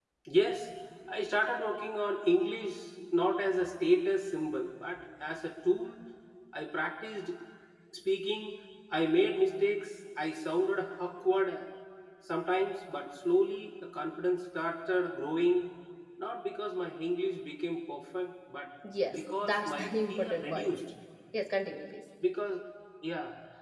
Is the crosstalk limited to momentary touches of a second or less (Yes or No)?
No